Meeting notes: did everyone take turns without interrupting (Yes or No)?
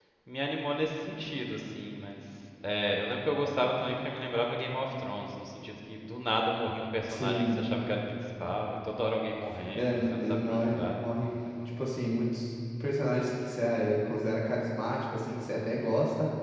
No